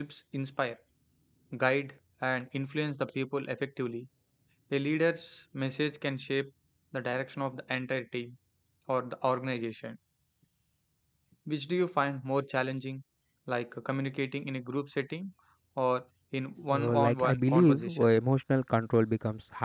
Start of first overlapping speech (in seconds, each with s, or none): 16.7 s